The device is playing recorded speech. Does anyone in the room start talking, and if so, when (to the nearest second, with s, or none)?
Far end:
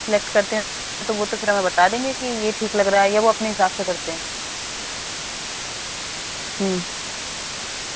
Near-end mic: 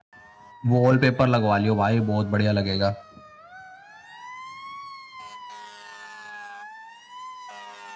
1 s